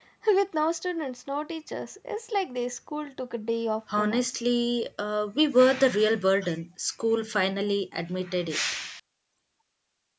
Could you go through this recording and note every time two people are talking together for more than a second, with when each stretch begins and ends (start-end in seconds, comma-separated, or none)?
none